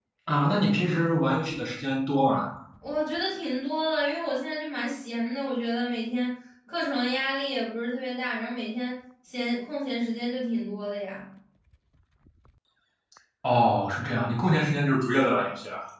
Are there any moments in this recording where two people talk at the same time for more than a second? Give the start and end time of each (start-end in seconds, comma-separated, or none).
none